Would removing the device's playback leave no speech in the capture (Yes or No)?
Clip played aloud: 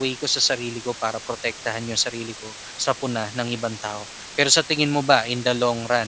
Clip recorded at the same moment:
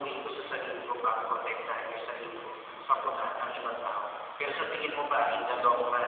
Yes